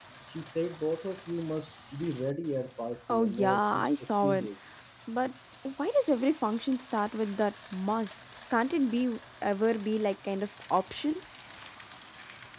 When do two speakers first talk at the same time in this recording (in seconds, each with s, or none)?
3.1 s